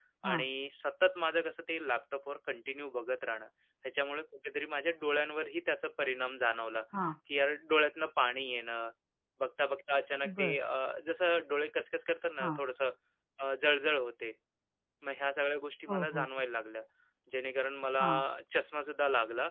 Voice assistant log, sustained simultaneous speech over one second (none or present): none